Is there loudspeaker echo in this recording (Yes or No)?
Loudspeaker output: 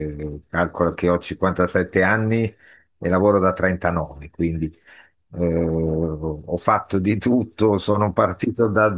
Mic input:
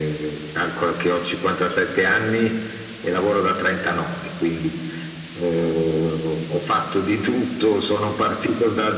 Yes